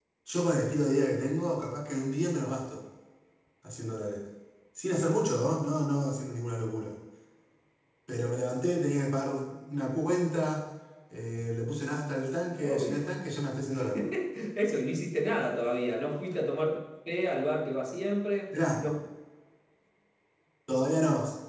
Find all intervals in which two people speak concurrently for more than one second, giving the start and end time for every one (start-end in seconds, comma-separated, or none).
none